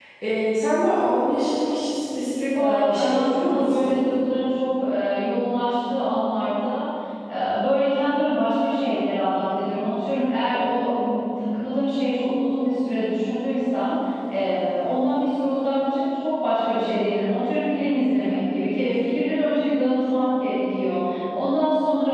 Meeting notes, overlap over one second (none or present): present